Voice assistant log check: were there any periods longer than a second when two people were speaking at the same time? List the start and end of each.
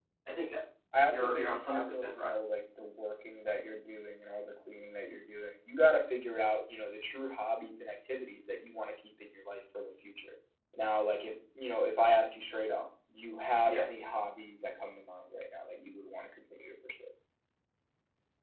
1.1-2.3

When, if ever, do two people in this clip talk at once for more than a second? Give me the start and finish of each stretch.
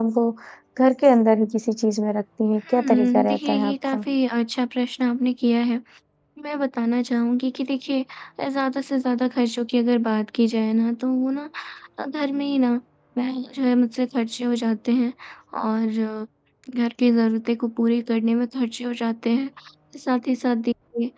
2.7-4.0

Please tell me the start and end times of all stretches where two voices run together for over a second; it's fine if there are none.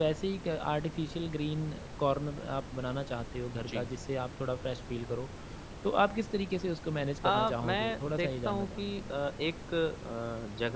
7.2-8.9

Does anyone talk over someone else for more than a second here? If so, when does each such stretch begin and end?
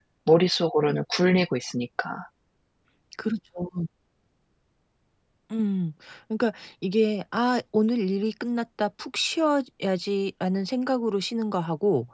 none

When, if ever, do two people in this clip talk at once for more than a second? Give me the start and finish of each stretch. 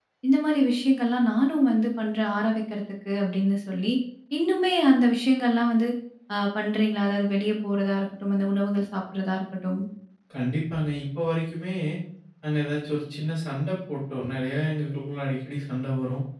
none

